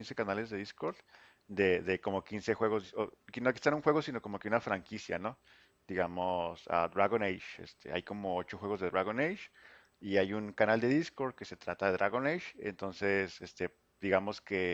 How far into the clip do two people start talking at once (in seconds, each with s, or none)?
none